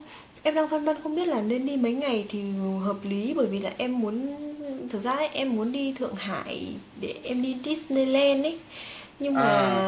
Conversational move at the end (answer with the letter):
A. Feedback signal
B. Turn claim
A